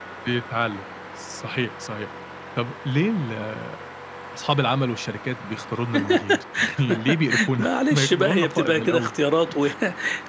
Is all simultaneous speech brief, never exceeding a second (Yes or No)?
No